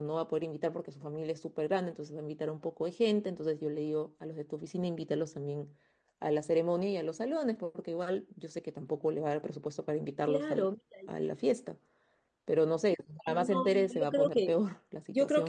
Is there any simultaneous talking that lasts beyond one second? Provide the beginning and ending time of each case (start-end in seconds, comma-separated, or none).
13.3-14.6